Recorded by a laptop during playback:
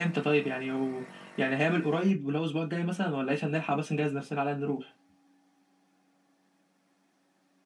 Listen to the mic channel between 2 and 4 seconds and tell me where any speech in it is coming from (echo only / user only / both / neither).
echo only